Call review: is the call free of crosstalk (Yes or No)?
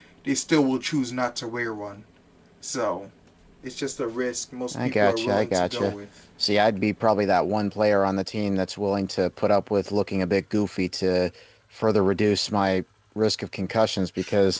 No